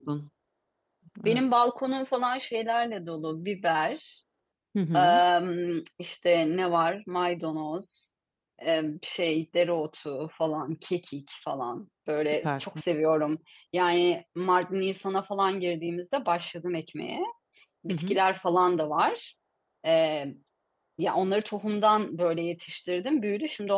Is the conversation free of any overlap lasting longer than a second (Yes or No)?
Yes